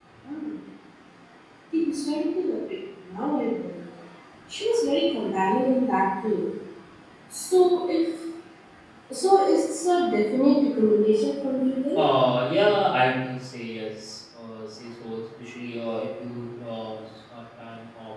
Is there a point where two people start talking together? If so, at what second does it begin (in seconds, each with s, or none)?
none